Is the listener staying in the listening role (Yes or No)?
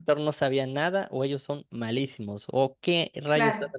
Yes